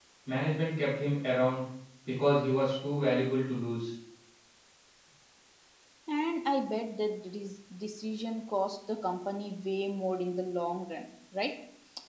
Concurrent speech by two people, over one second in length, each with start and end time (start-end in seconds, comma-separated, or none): none